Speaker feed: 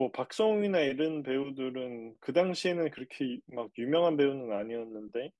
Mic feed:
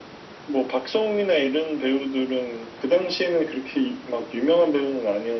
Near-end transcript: none

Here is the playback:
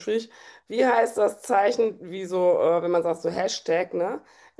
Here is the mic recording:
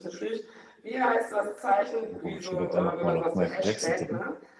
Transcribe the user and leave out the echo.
Oh, ich würde jetzt einfach mal auf Michael Jackson tippen.

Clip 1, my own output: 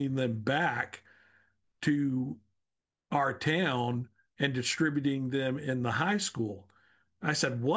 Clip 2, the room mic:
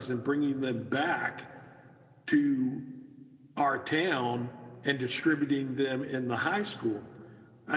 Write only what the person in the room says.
none

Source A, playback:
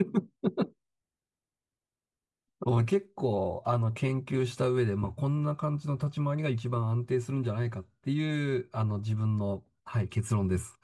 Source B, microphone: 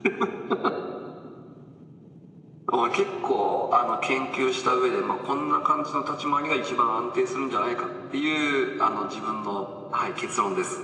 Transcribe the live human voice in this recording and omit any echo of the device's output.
none

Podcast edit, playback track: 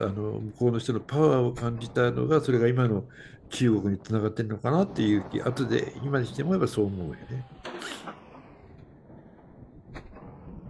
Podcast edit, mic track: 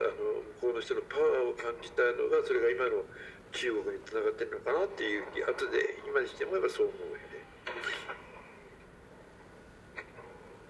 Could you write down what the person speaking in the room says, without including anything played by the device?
none

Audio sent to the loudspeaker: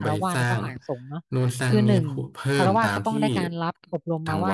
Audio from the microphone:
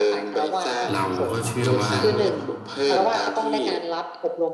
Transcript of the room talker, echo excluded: เราก็เชื่อว่า

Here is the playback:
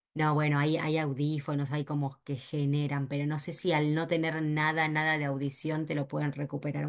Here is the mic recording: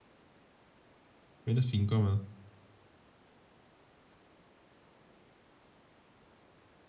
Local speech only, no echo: Menos incómodo,

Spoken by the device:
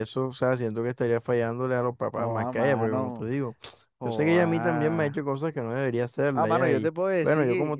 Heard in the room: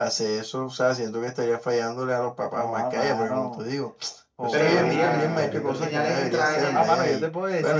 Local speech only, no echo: Pero yo diría que si estás viendo señales extrañas

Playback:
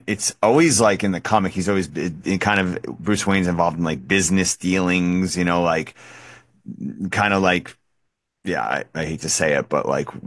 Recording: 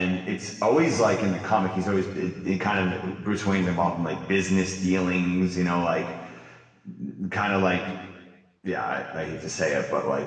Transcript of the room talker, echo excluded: none

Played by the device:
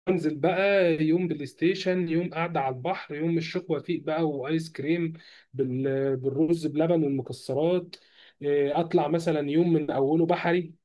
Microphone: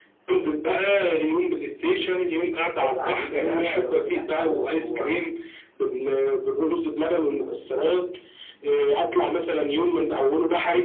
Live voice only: شاطئ عجيبة ده لو سمعت عنه هو

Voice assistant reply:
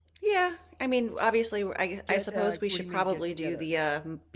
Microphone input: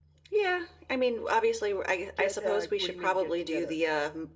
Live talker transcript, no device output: none

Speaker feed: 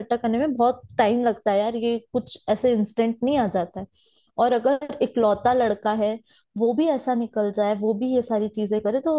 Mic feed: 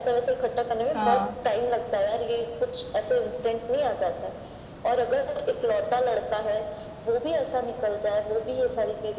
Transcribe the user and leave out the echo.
हाँ

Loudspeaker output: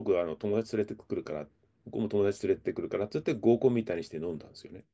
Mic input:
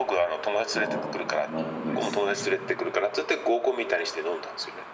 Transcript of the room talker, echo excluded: なあ、なるほどですね。

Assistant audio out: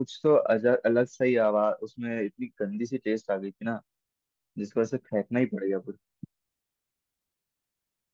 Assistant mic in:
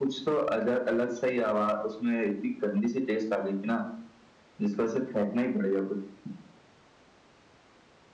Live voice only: none

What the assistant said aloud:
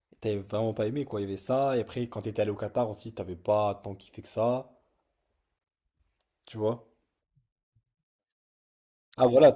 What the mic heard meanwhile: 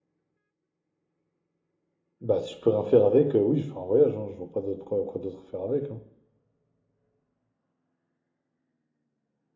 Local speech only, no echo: Bah, si je peux rien faire avec, euh, oui, je fais un voyage, hein. Je vois pas d'autre quoi, quoi d'autre faire avec, hein.

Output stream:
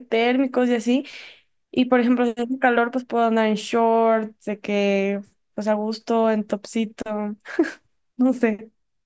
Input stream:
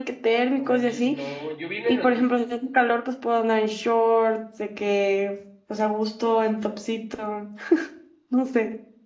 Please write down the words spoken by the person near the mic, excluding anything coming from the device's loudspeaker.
No manches, no. Yo vi una noticia.

